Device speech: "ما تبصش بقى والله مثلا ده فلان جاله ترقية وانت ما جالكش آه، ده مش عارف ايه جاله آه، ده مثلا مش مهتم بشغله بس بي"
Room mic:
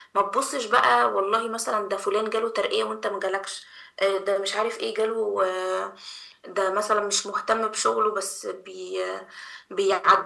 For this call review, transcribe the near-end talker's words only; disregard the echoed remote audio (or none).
none